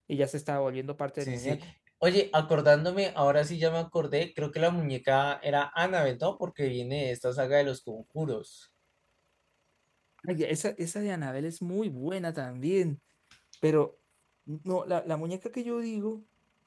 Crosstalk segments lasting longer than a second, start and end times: none

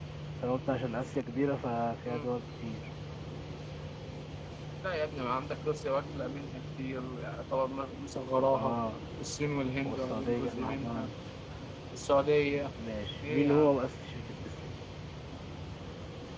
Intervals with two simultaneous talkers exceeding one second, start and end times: 9.8-11.1

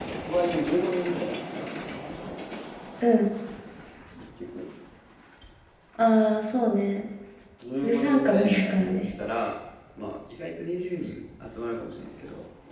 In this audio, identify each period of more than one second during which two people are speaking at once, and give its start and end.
7.8-9.1

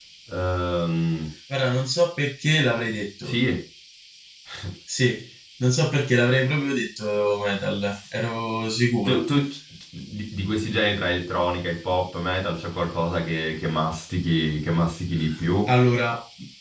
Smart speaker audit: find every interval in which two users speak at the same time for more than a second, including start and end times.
none

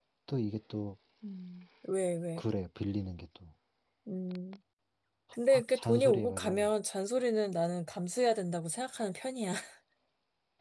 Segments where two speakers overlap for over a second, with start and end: 5.3-6.7

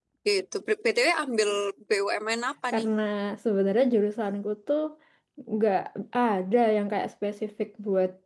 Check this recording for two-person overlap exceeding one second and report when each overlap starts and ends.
none

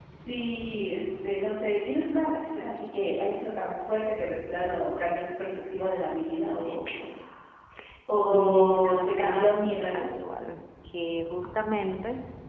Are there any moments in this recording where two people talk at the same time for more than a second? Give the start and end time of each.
8.3-10.0

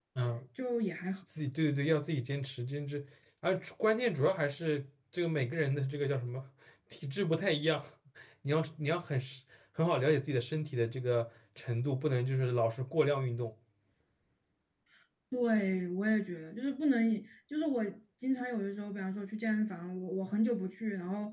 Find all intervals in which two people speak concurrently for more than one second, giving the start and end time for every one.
none

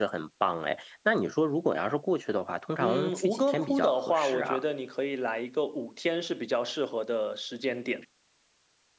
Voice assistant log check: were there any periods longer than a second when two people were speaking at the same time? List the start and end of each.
2.8-4.6

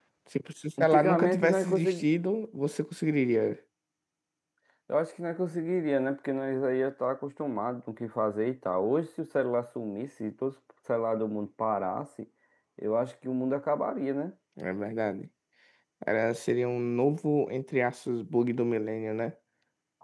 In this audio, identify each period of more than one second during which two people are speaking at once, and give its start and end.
0.8-2.0

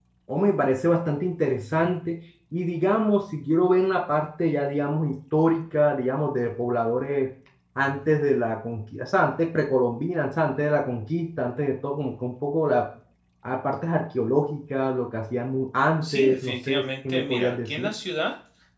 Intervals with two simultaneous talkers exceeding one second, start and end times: 16.0-17.9

